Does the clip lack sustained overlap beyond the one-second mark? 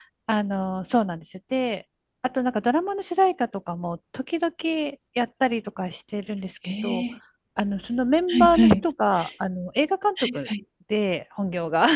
Yes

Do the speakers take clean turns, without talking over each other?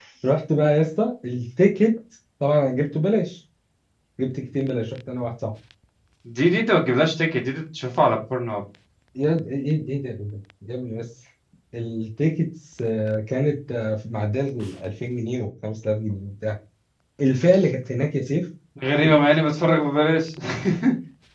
Yes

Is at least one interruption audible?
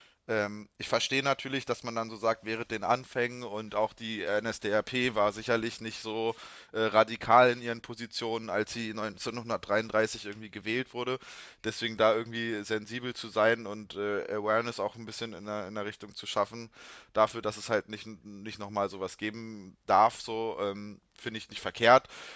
No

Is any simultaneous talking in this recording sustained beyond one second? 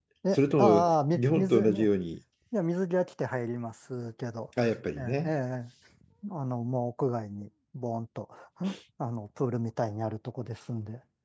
Yes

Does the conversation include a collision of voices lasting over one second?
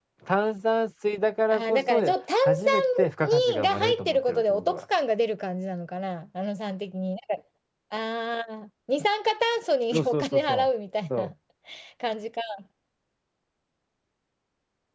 Yes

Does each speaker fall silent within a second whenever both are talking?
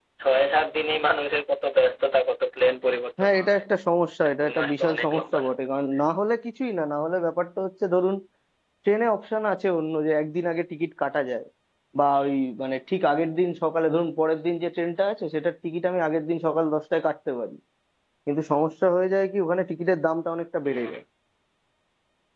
No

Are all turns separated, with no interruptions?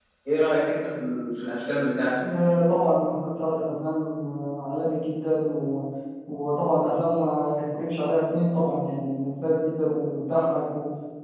Yes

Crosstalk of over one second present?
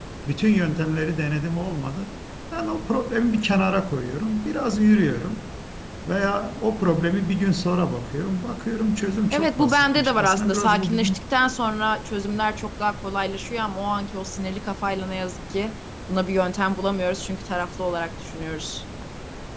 Yes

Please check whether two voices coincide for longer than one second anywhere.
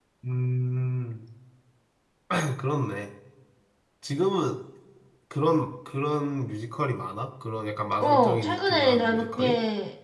Yes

